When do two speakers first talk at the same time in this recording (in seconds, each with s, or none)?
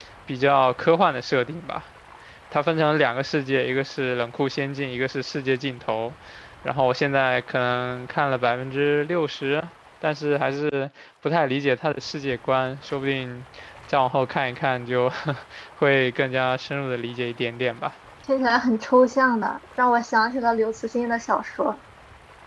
none